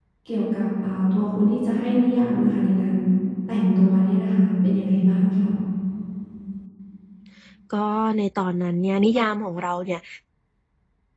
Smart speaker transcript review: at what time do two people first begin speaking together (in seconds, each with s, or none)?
none